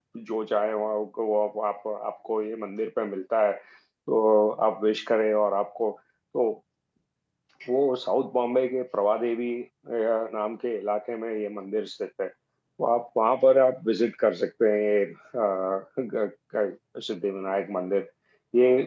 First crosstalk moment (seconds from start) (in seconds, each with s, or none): none